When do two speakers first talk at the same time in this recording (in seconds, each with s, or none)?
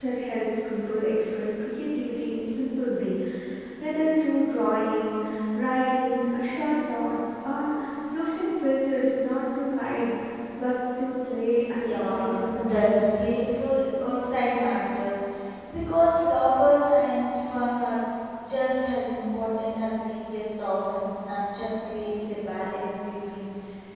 11.8 s